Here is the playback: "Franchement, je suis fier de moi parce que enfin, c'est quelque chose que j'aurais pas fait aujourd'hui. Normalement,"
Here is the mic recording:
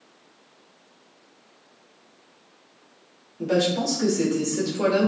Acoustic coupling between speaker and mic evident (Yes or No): No